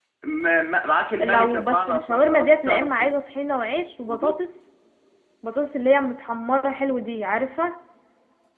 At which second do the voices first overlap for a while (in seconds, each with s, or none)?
1.2 s